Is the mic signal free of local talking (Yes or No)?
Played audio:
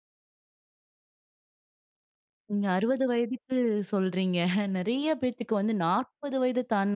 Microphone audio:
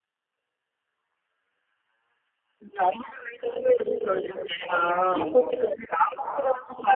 No